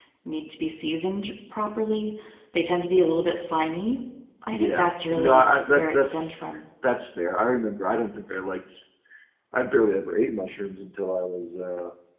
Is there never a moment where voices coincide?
No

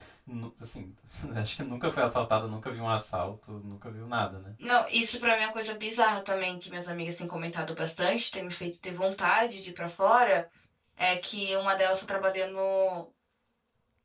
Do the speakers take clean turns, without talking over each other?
Yes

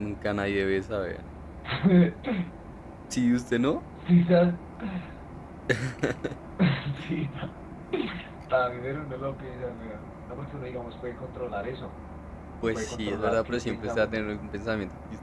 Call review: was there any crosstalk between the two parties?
Yes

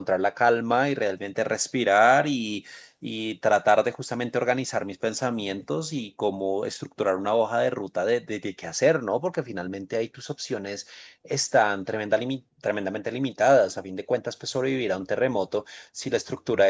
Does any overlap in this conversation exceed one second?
No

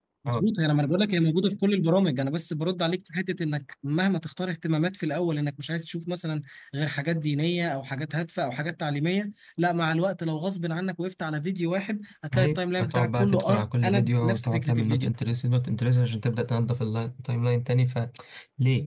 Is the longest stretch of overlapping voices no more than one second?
No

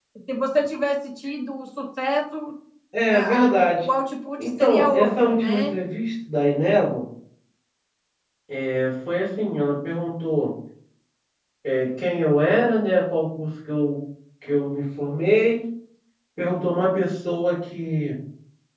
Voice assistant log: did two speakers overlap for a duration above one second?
Yes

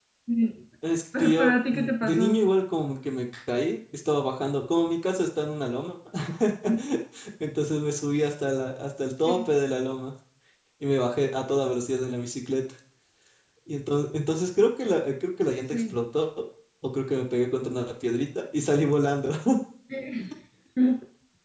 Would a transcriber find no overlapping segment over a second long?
No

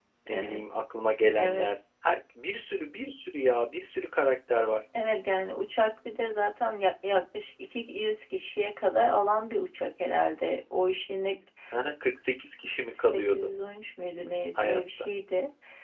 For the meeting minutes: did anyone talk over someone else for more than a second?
No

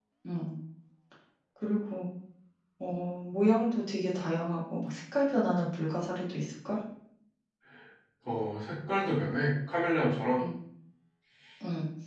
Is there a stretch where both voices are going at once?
No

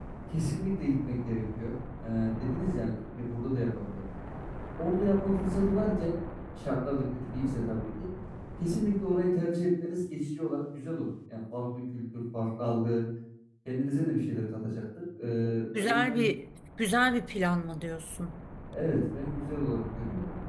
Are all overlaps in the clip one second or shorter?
Yes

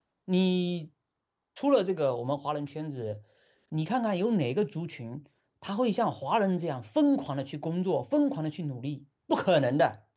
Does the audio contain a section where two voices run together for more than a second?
No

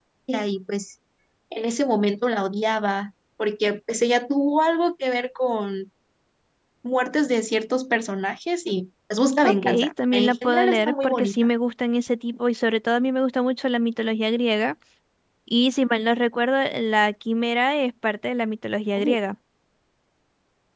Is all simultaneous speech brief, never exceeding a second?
No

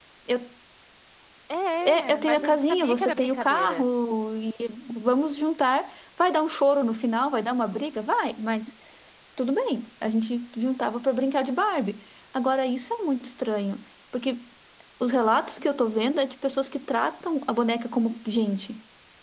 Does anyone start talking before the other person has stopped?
Yes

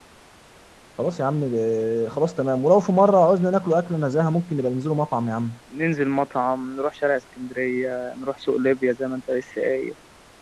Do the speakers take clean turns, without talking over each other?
Yes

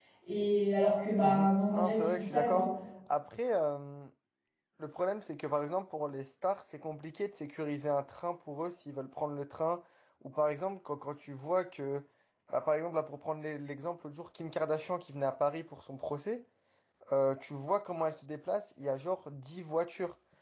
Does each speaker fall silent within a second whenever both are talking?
No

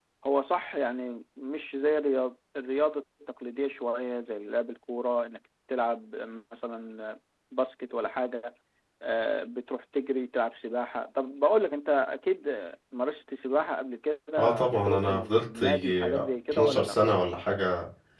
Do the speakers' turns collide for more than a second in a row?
Yes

